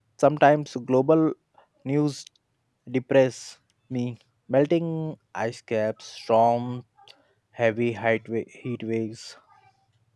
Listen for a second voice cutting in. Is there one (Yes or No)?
No